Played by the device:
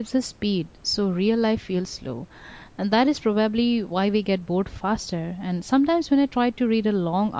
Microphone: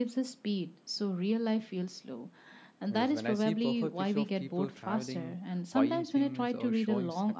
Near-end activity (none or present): present